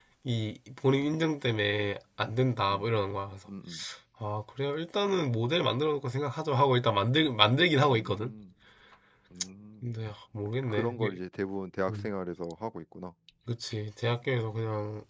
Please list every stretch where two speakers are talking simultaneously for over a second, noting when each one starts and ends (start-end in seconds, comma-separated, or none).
none